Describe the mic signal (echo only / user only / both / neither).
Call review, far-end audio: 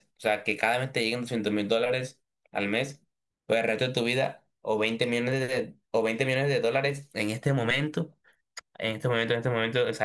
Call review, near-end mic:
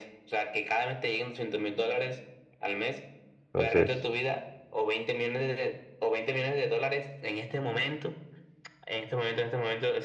both